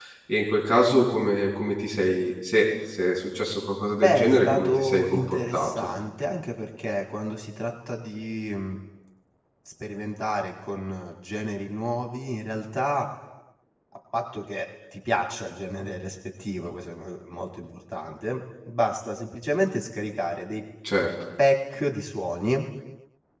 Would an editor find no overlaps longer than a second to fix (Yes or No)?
No